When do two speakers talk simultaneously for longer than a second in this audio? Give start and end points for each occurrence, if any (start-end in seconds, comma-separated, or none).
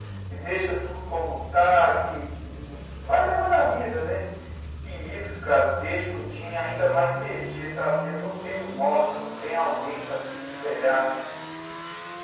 none